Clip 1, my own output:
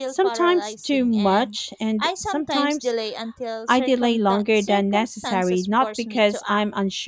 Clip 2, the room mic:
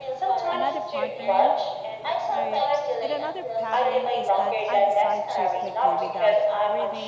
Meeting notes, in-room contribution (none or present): present